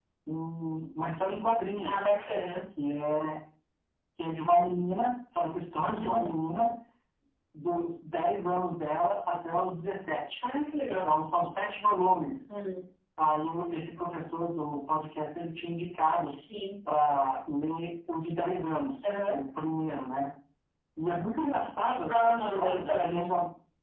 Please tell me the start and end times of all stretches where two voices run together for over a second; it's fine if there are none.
21.8-23.2

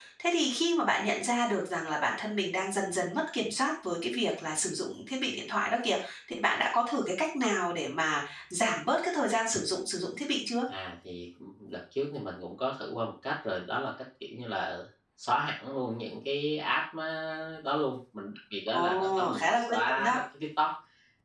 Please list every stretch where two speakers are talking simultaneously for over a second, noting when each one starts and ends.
18.7-20.2

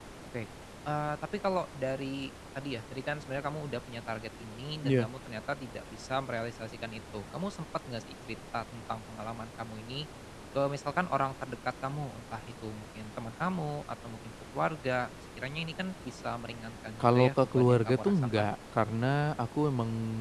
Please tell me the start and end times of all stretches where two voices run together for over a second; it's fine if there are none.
17.0-18.5

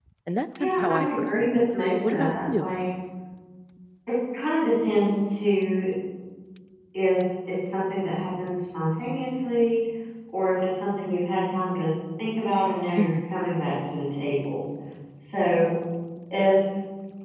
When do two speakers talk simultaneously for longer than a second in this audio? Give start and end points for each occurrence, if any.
0.6-2.7

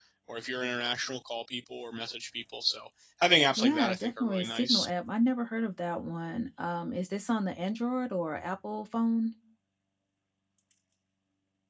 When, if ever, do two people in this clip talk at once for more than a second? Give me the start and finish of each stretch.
3.6-4.9

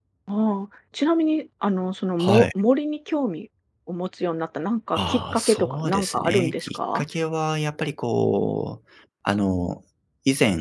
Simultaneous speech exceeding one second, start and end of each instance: 5.0-7.0

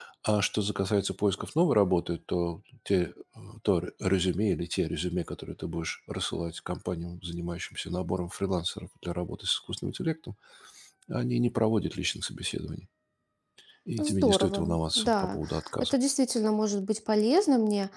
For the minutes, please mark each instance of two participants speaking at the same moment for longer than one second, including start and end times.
14.0-15.4

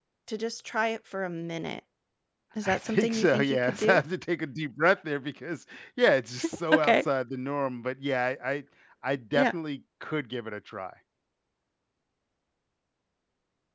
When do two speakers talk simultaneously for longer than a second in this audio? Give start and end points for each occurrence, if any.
2.6-4.0

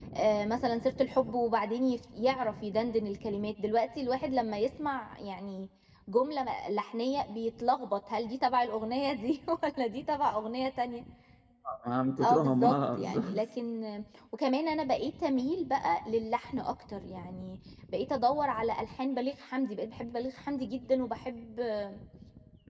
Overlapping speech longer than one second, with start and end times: 12.2-13.4

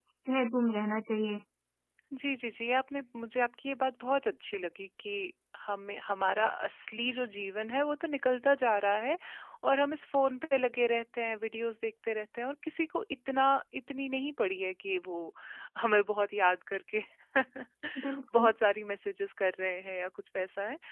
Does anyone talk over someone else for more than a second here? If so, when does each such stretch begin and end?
none

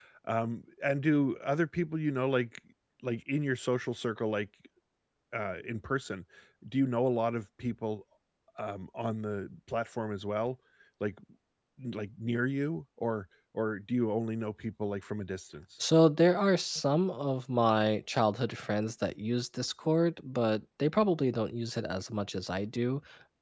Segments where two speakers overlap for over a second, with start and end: none

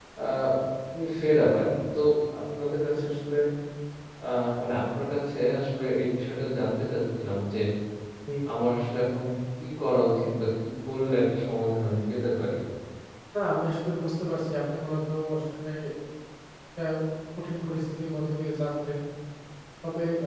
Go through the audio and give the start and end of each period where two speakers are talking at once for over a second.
none

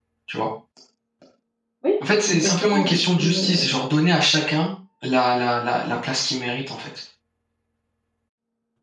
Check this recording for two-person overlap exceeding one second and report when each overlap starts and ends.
2.3-3.8

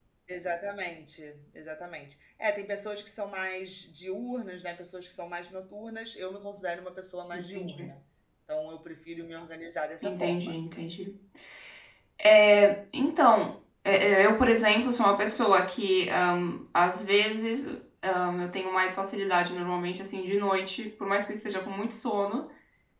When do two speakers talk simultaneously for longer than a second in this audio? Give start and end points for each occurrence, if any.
none

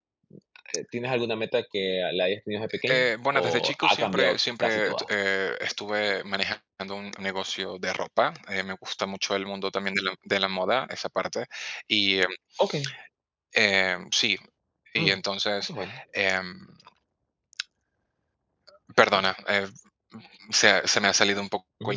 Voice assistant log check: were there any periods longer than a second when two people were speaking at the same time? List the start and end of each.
2.9-5.1

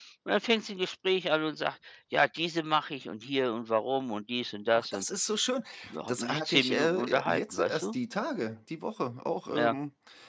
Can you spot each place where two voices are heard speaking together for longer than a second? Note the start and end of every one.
6.1-7.9

